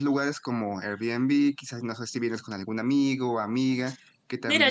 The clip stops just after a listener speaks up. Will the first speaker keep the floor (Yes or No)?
No